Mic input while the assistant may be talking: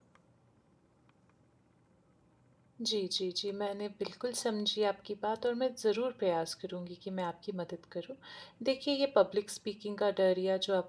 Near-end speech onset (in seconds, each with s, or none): 2.8 s